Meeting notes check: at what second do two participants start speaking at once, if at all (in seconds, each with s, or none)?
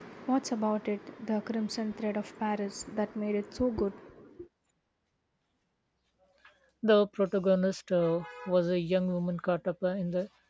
none